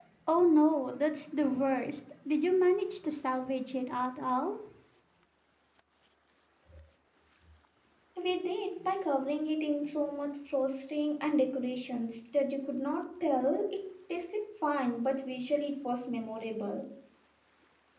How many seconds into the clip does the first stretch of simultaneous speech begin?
none

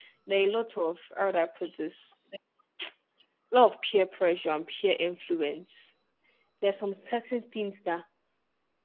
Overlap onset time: none

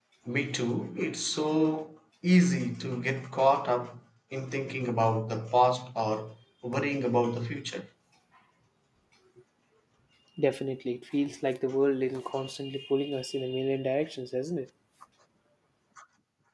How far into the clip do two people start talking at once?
none

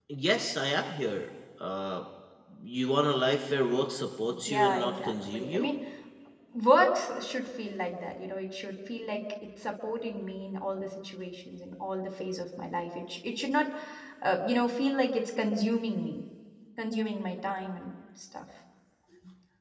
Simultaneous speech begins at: 4 s

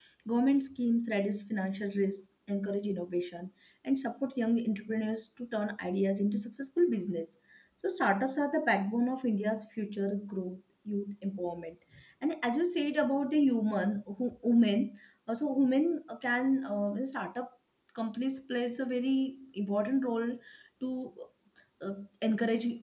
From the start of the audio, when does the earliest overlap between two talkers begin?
none

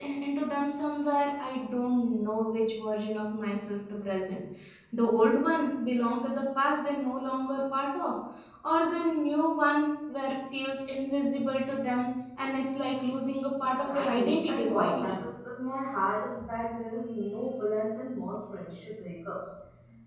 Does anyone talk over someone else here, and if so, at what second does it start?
14 s

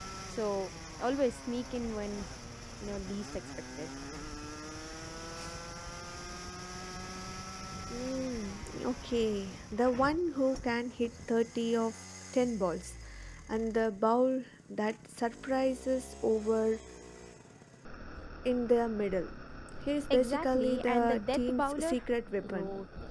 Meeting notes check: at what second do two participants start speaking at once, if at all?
20 s

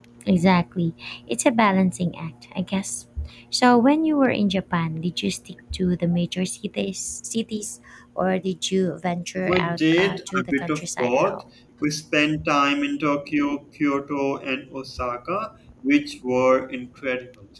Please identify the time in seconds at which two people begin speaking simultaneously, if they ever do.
9 s

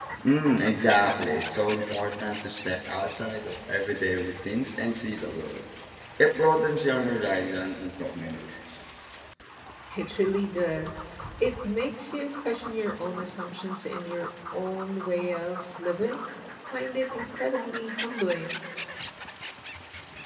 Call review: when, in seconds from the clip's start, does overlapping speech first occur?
none

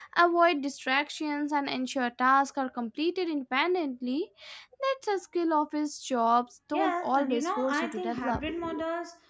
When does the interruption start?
7 s

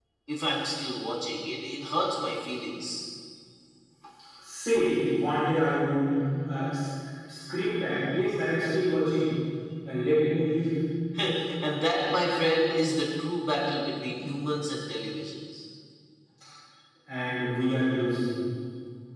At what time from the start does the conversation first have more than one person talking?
none

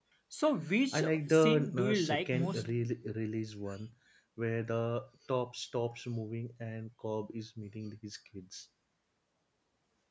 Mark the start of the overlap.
1 s

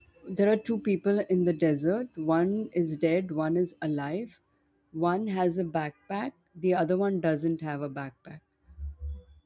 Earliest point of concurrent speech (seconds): none

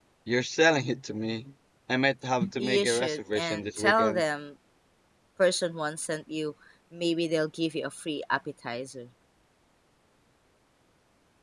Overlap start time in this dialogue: 2 s

